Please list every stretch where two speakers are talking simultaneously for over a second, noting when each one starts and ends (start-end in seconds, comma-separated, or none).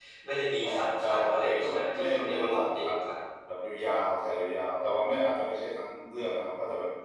0.6-2.9